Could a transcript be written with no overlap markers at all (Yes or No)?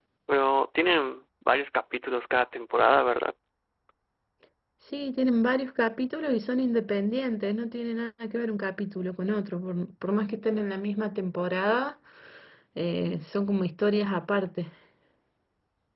Yes